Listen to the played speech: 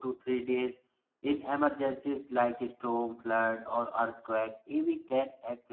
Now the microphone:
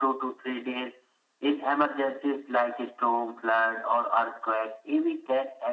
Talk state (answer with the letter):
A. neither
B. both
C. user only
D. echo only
D